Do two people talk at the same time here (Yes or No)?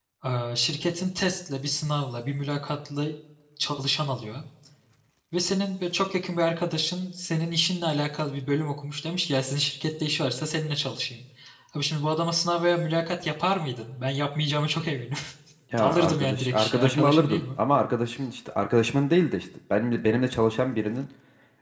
Yes